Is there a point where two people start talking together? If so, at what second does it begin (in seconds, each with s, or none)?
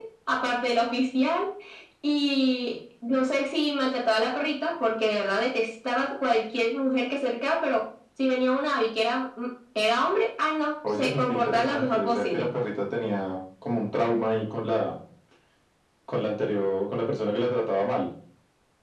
10.8 s